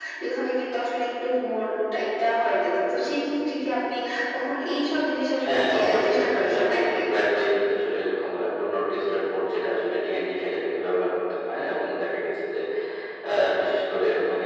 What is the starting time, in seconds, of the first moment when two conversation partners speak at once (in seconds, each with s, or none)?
5.4 s